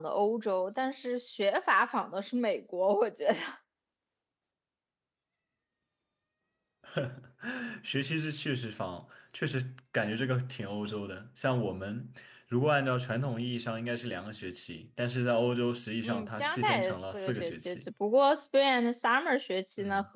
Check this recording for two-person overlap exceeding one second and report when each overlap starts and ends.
16.0-17.8

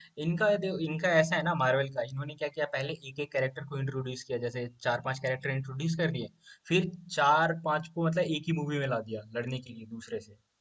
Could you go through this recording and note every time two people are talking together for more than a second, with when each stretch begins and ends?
none

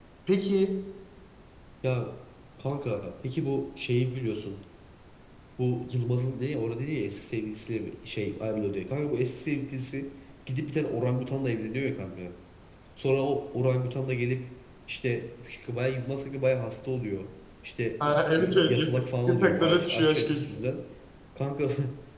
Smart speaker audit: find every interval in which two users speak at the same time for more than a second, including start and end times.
19.3-20.6

